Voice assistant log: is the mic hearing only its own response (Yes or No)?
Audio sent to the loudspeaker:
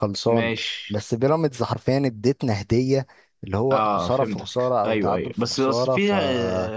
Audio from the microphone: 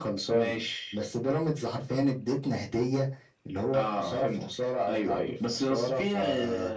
Yes